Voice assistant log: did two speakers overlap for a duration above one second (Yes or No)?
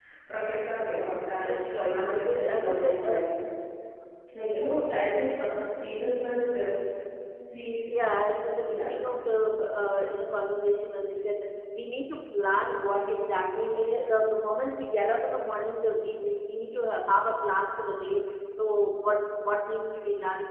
Yes